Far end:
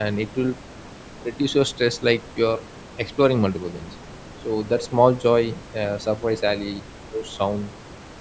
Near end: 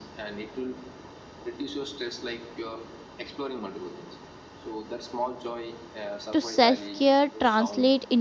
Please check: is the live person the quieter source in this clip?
No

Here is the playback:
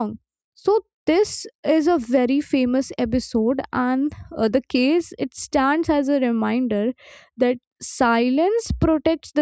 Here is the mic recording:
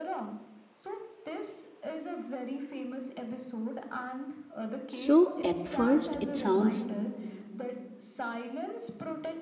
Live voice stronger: Yes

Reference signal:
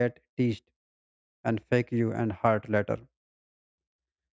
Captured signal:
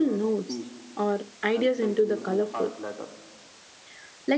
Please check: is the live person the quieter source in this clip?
No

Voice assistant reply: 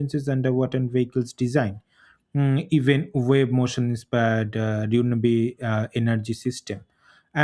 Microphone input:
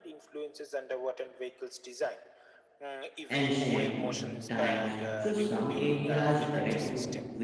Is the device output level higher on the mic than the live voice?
No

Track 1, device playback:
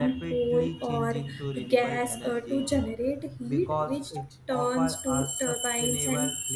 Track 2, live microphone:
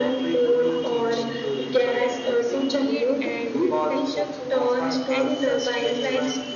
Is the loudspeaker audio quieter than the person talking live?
No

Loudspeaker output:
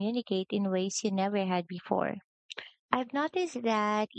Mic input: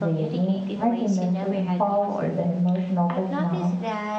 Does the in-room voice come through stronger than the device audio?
Yes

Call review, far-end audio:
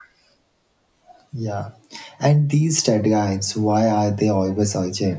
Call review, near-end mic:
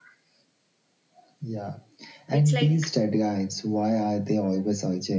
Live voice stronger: No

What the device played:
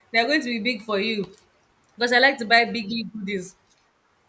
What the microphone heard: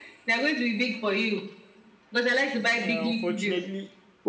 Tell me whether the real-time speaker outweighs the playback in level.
No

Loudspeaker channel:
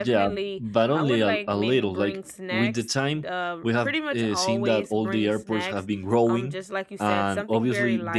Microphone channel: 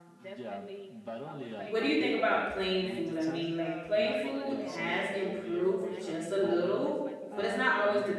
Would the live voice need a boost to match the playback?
No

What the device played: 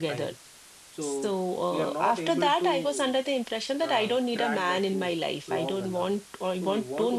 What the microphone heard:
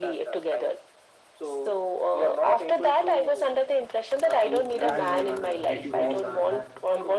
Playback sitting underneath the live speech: No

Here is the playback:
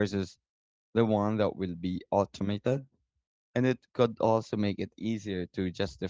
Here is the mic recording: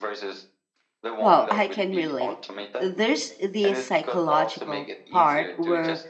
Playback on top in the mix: No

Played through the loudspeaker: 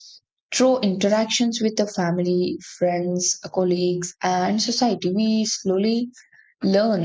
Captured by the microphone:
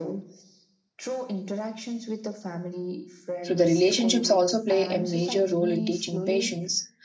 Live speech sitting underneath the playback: No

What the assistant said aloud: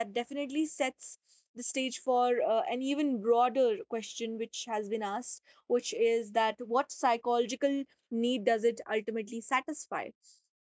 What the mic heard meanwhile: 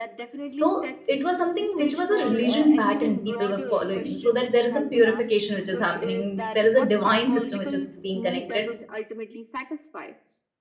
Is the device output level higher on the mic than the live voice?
No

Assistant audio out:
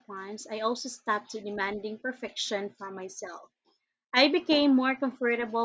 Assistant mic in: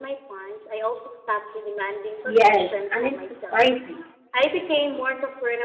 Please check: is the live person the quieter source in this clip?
No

